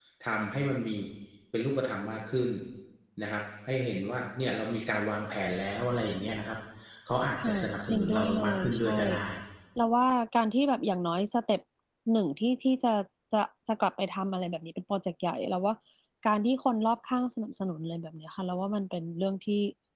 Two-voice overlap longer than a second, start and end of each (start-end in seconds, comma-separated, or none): 7.4-9.0